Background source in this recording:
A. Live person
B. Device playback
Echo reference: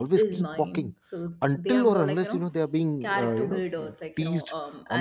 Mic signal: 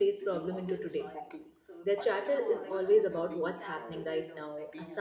B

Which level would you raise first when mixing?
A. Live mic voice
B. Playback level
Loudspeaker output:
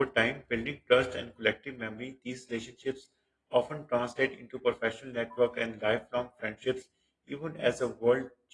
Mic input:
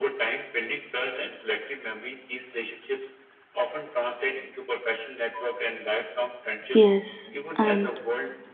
B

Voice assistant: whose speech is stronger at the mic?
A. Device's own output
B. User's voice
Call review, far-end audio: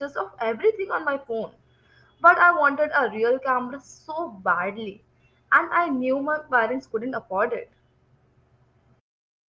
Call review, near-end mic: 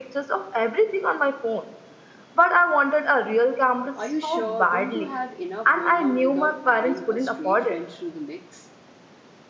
A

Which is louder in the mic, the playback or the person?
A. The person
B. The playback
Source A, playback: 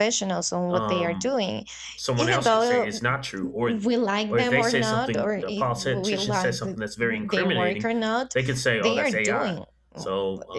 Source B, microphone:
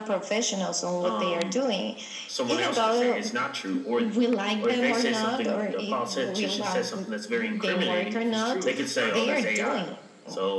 B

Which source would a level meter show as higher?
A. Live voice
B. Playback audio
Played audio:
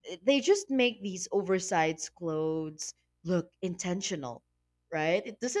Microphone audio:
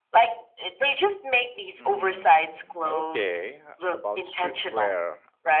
B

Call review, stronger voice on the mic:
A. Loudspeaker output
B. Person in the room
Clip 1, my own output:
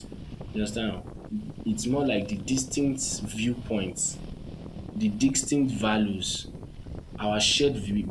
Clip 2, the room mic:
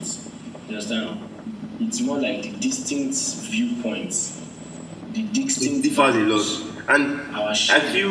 B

